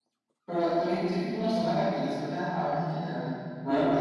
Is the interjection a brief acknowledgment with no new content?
No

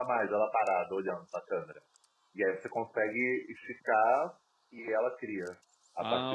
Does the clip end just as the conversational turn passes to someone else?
Yes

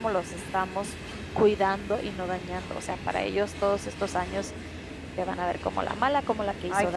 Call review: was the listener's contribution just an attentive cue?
Yes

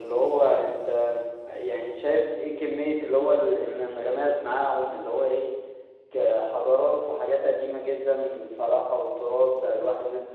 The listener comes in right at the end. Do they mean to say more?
No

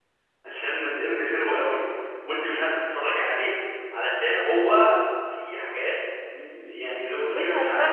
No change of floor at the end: No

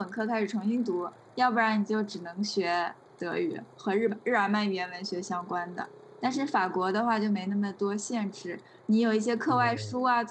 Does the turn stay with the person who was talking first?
Yes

